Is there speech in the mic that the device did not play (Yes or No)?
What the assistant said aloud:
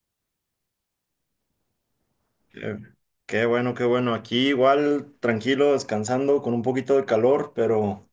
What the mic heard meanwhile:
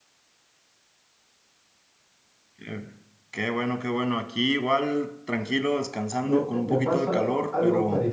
Yes